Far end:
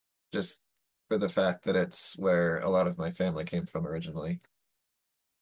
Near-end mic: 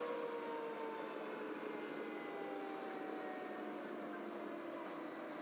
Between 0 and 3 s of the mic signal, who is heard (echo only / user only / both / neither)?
neither